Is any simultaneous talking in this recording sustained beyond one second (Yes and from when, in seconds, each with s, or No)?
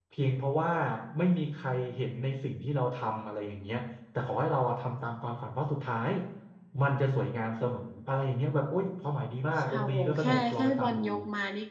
Yes, from 9.6 s